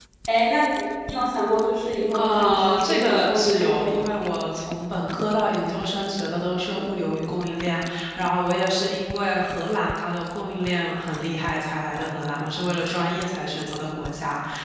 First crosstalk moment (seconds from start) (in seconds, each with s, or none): 2.2 s